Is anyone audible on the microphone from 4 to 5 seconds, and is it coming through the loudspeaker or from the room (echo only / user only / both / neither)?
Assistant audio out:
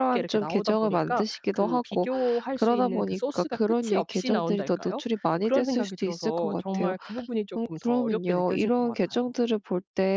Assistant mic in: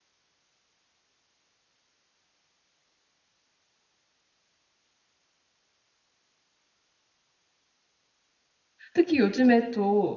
neither